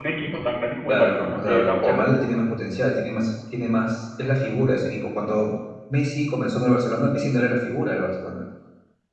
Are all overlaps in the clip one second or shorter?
No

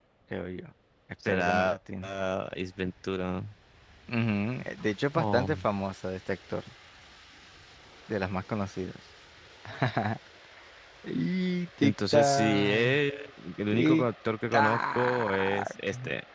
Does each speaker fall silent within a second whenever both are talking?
No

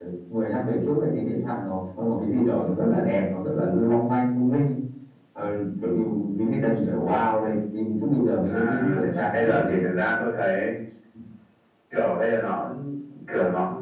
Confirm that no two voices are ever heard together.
No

